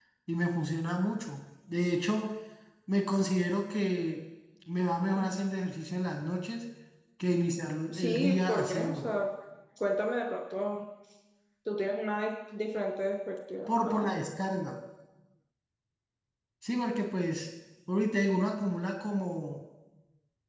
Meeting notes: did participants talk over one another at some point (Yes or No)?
Yes